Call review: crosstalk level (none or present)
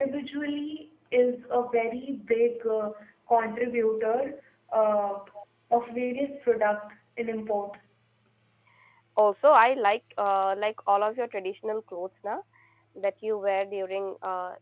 none